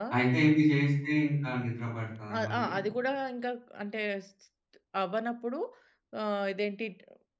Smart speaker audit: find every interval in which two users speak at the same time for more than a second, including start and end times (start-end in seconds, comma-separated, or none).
none